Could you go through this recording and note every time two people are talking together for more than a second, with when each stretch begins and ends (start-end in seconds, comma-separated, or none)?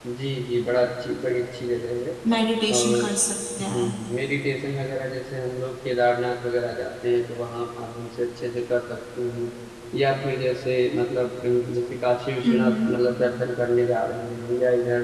none